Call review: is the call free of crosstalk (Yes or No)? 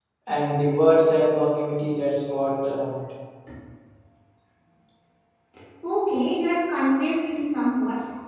Yes